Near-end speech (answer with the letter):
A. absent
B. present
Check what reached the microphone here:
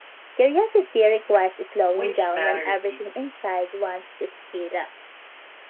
B